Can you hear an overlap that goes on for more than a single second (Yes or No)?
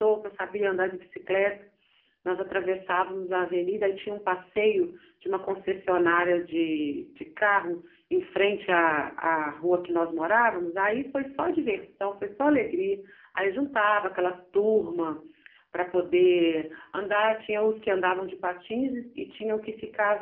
No